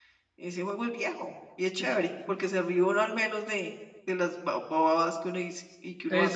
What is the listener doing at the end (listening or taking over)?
taking over